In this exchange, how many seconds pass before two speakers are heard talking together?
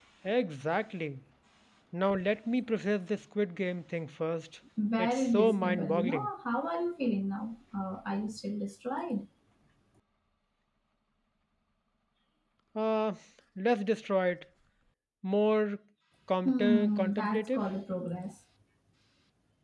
5.0 s

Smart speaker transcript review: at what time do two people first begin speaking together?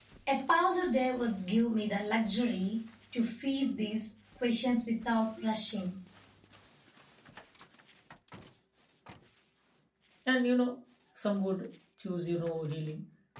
none

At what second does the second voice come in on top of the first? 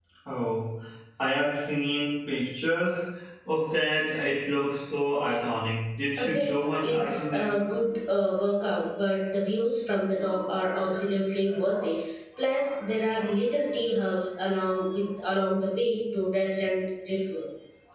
6.2 s

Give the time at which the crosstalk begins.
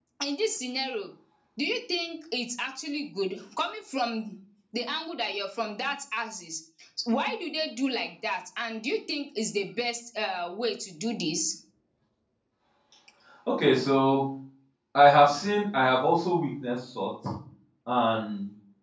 none

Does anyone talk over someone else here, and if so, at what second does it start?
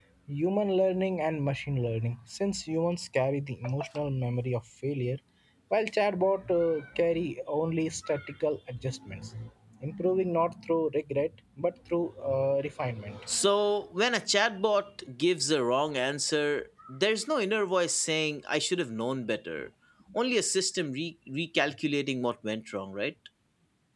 none

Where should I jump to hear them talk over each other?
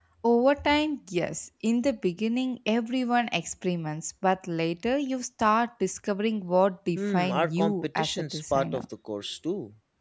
7.0 s

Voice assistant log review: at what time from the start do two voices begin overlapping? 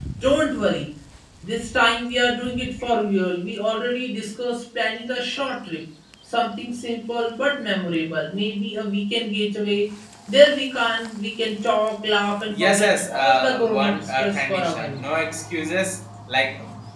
12.5 s

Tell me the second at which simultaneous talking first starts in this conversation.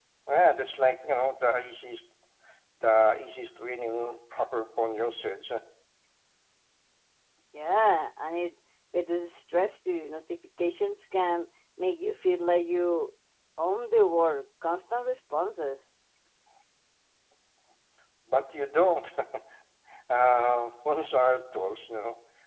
none

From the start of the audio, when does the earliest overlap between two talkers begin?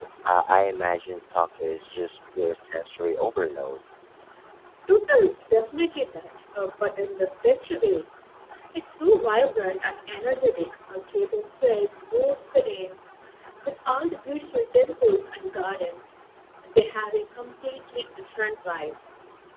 none

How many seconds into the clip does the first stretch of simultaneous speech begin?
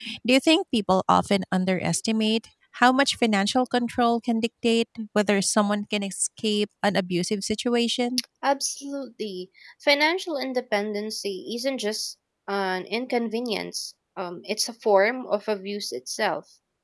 none

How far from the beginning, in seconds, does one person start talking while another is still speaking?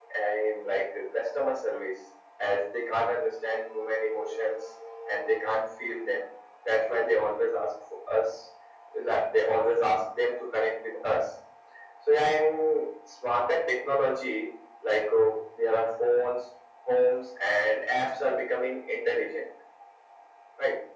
none

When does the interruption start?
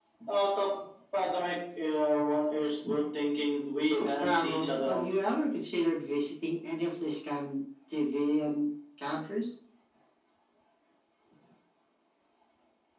3.8 s

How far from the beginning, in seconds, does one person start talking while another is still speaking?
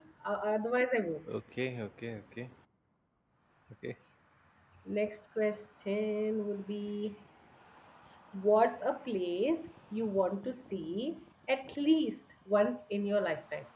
none

